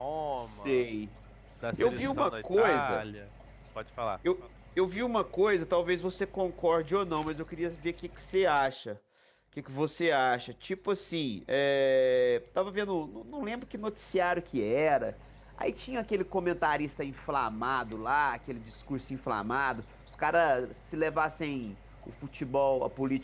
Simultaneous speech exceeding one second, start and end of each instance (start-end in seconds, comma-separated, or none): 1.8-3.0